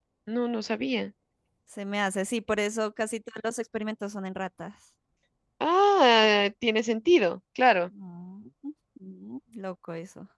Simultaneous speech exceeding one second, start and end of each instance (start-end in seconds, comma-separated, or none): none